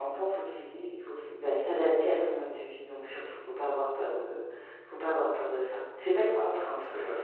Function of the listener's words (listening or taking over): taking over